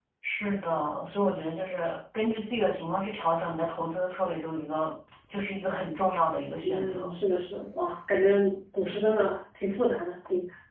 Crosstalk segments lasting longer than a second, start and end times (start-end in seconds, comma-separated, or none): none